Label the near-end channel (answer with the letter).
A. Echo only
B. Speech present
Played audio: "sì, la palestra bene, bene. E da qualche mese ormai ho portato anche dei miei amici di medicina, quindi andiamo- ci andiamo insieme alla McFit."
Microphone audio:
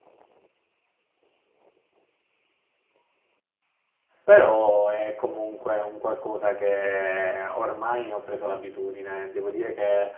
B